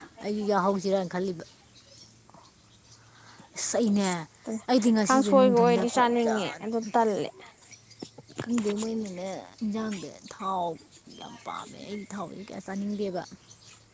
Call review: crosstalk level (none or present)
present